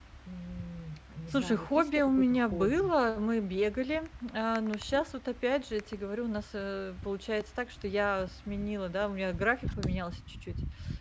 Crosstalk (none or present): present